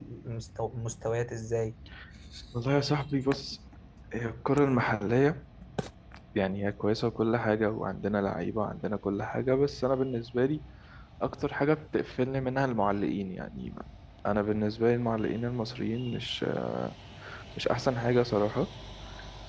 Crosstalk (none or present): none